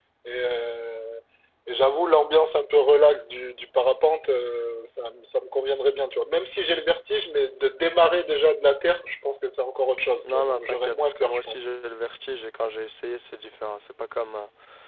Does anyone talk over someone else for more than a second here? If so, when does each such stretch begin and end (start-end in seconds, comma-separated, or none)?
10.2-11.6